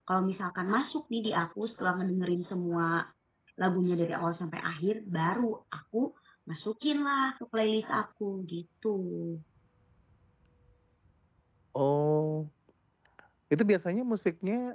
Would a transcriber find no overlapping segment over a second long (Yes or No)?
Yes